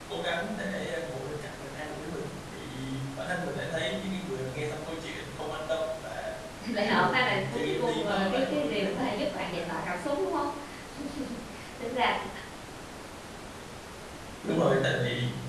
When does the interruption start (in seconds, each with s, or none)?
6.8 s